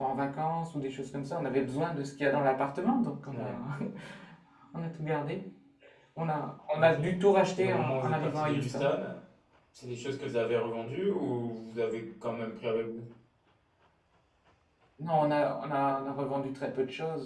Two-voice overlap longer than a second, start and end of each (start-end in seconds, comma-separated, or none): 7.6-8.9